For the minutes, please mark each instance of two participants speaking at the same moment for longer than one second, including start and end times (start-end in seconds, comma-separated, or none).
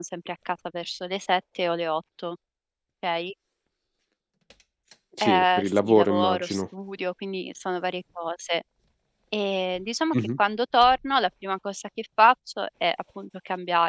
5.2-6.6